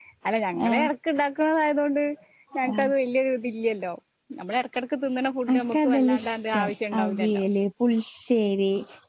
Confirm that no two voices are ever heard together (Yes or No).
No